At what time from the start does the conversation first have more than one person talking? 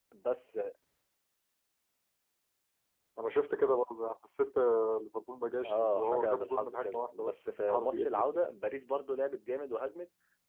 5.6 s

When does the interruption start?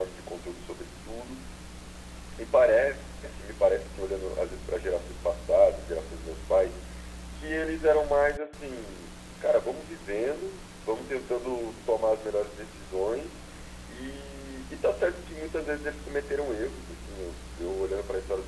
none

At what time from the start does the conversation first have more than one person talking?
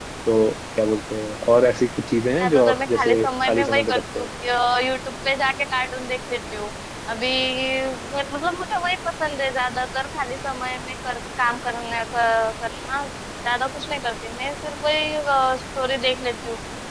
2.4 s

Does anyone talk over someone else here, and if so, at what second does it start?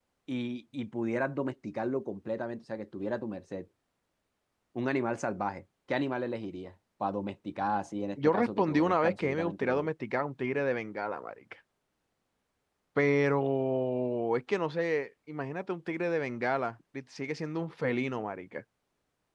8.2 s

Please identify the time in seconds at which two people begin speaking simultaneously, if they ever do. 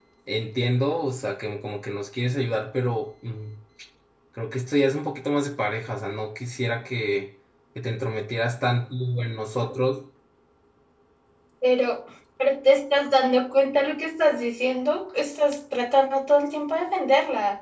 none

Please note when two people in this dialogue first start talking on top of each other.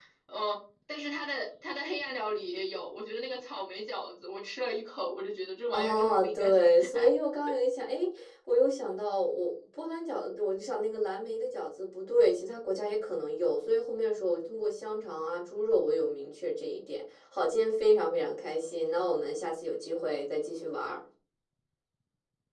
5.7 s

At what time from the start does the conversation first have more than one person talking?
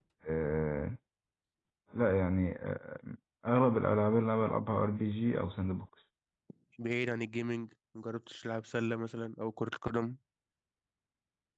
none

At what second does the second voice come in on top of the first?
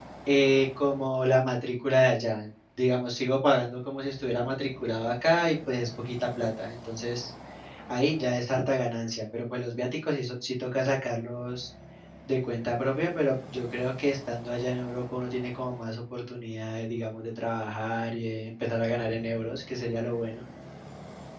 none

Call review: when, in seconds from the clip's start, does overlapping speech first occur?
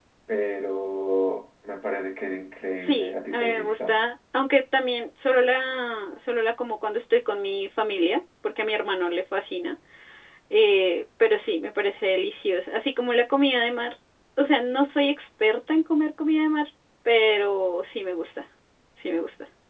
2.8 s

